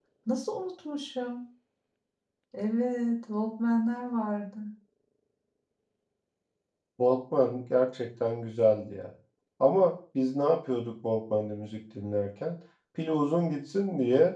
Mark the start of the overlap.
none

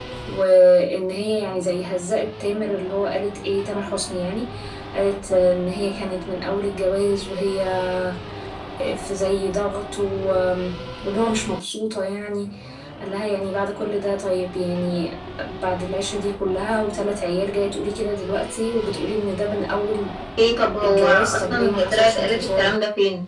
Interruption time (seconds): 20.8 s

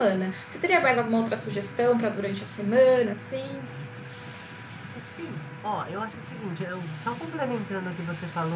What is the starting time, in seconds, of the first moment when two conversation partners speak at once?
none

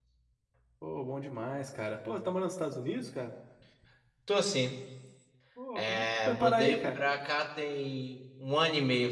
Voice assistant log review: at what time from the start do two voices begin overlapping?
5.8 s

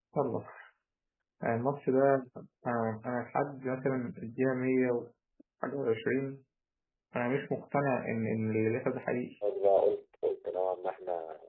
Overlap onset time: none

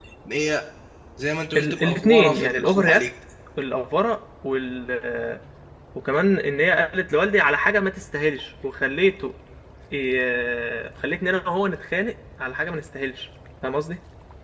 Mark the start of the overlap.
1.6 s

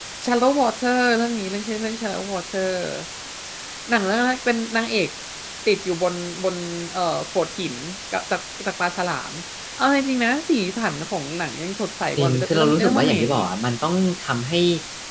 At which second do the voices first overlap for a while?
12.2 s

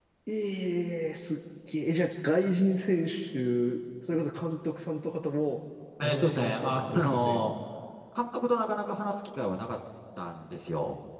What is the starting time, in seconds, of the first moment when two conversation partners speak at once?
6.0 s

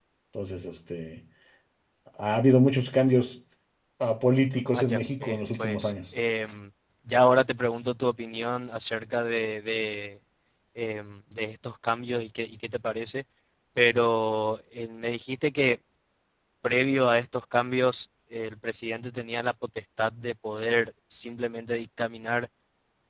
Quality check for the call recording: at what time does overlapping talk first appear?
4.7 s

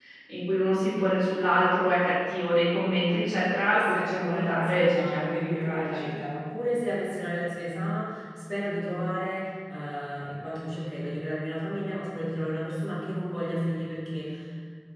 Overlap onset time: 3.7 s

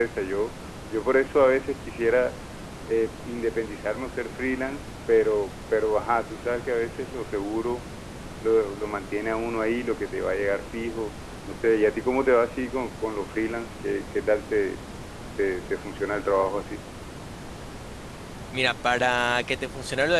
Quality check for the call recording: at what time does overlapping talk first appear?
none

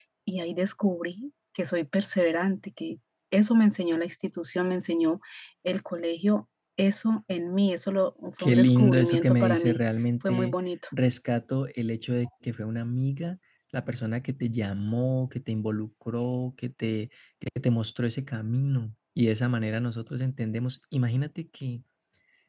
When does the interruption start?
8.4 s

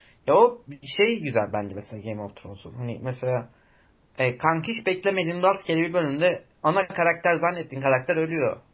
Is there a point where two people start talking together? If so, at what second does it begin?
none

